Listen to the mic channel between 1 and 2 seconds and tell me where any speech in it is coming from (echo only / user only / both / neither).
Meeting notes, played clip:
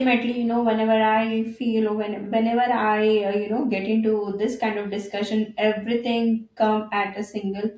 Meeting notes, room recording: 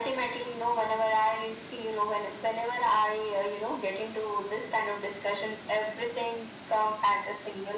echo only